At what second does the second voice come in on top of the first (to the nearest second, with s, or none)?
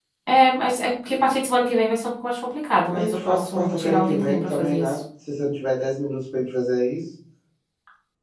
3 s